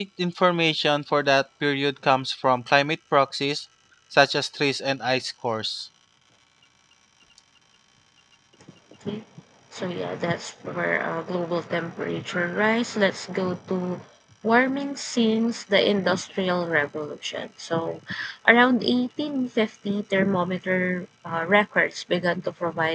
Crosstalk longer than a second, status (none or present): none